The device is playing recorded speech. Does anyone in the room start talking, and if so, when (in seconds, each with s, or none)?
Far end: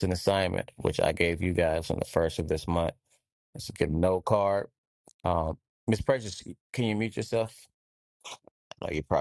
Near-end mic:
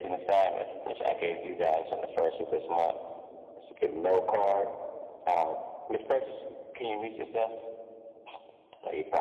none